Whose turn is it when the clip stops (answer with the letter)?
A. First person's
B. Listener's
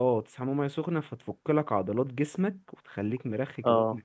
B